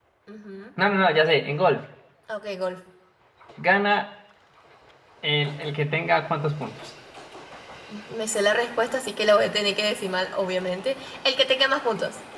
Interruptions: none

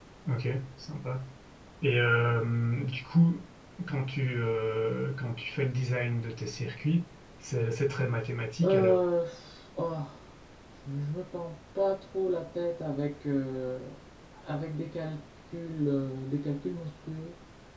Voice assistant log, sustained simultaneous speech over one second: none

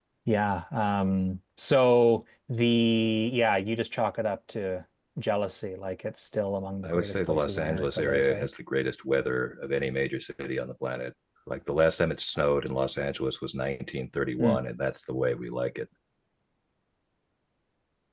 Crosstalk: present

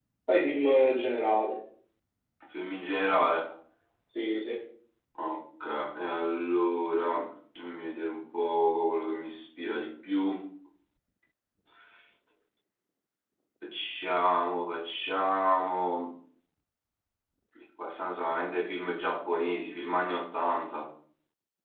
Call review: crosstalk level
none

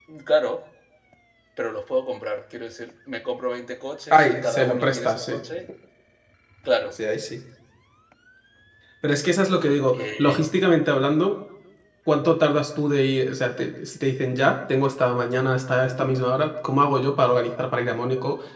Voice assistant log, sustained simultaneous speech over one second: present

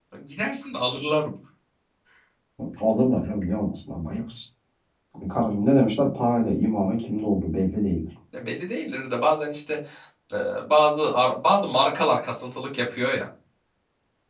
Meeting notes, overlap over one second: none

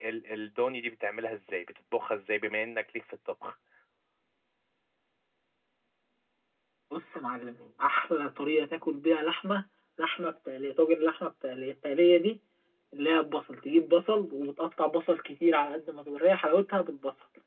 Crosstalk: none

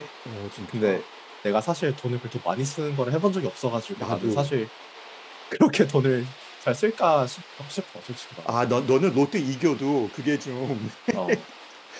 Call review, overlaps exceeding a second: none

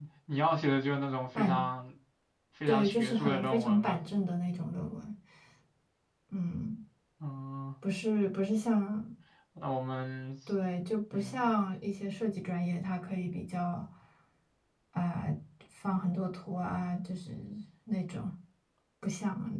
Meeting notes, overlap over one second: present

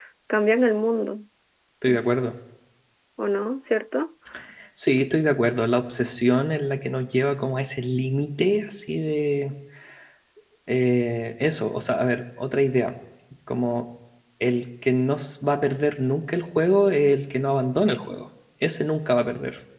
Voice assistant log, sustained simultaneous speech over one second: none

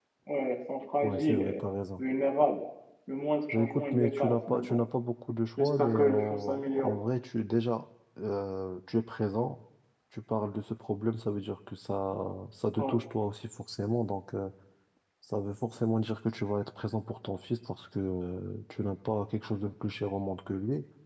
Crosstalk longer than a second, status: present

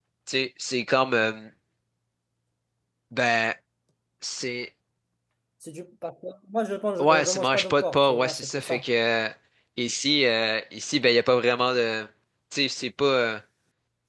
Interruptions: present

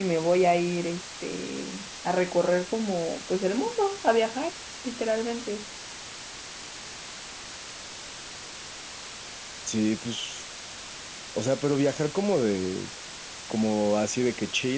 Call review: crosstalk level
none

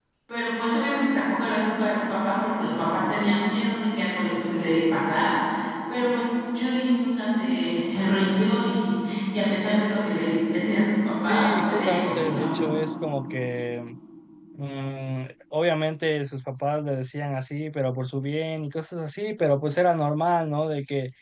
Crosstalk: present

